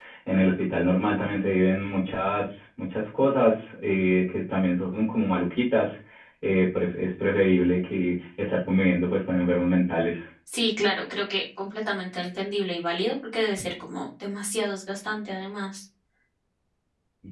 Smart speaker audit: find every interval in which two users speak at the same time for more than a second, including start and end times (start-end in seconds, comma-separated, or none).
none